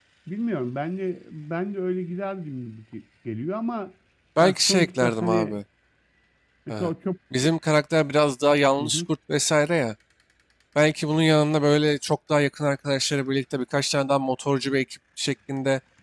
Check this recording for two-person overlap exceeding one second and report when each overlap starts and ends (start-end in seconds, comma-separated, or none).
4.4-5.6